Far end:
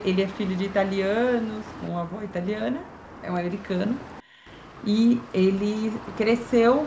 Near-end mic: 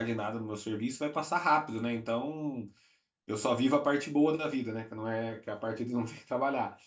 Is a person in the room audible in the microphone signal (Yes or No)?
Yes